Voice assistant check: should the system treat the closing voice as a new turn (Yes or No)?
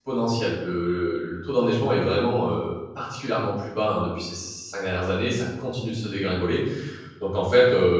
No